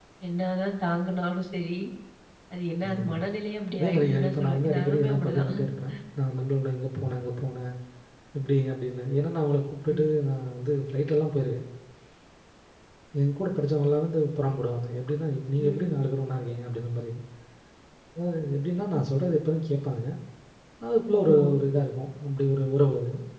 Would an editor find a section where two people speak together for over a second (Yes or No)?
Yes